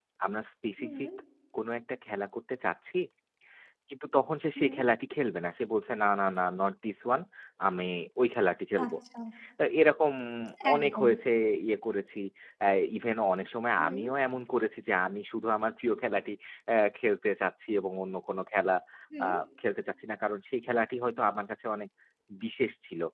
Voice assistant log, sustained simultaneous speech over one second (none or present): none